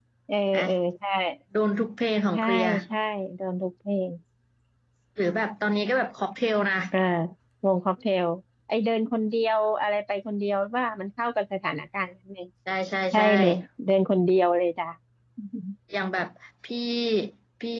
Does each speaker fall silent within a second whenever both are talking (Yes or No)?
Yes